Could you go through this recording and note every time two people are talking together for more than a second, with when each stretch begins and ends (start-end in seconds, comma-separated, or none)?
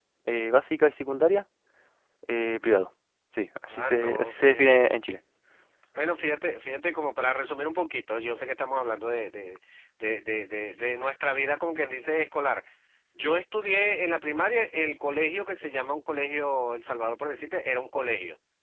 3.7-4.9